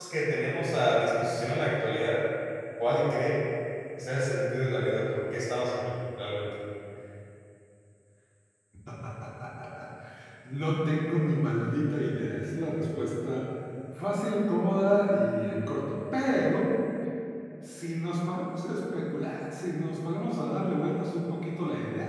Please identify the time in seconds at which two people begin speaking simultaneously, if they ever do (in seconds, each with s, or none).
none